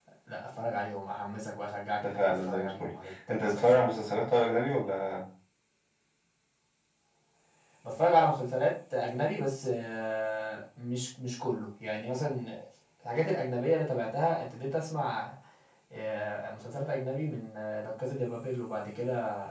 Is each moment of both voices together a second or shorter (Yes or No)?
No